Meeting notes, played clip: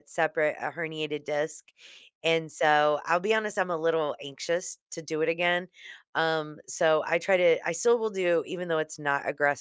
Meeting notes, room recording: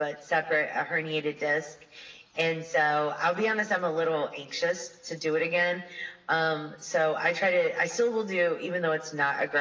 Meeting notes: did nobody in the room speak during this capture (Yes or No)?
Yes